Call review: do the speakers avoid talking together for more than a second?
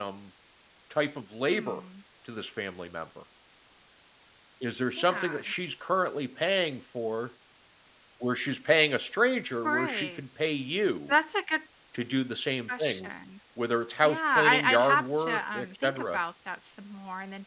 No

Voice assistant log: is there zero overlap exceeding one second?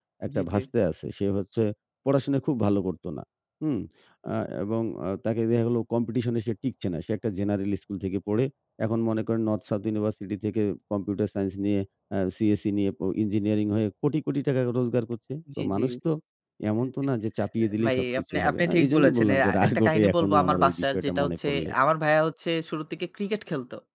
No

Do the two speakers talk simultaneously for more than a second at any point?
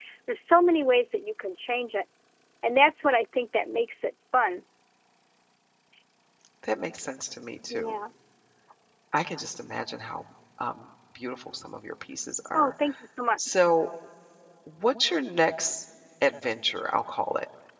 No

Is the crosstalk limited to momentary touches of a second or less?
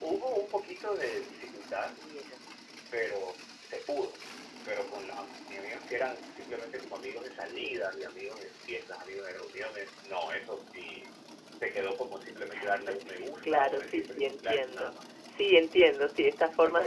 No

